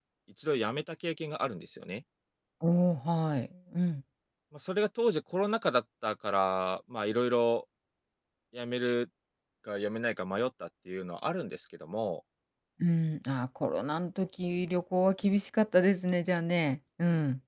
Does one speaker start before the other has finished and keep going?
No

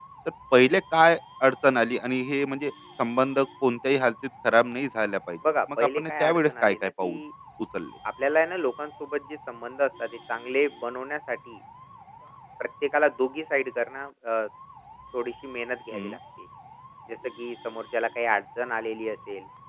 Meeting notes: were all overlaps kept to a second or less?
No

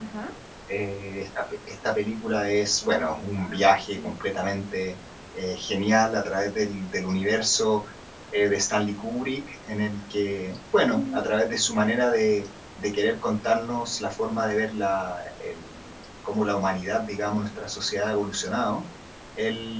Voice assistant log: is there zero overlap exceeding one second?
No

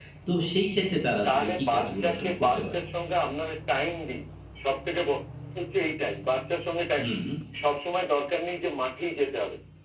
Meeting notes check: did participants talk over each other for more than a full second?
Yes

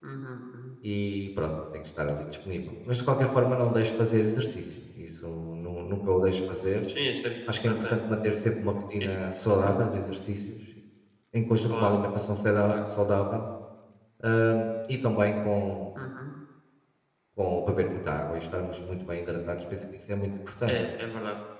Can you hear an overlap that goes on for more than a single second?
No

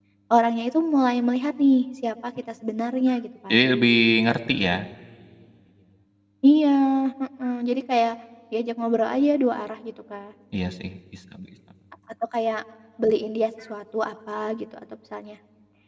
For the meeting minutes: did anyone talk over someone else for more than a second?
No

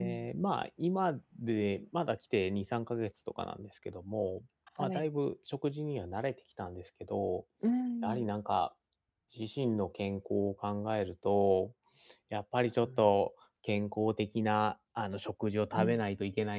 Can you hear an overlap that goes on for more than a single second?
No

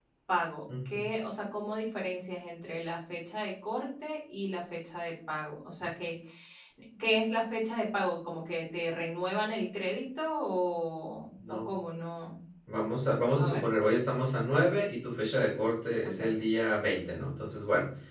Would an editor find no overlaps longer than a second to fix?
Yes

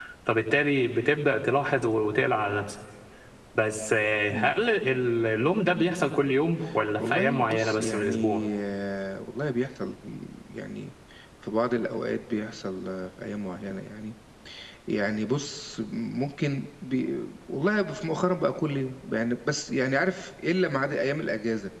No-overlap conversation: No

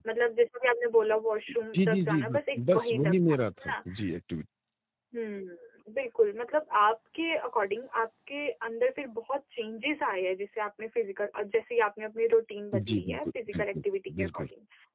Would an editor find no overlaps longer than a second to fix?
No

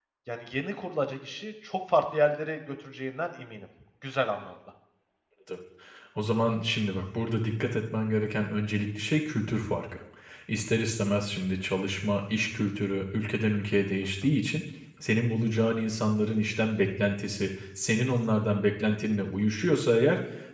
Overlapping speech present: No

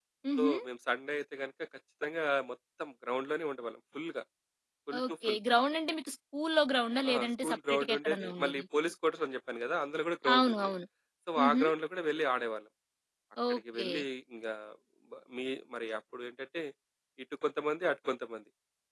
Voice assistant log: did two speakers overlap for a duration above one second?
Yes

